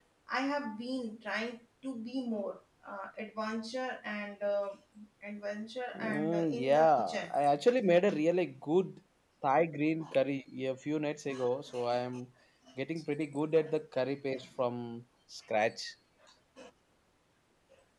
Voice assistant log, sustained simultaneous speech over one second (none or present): present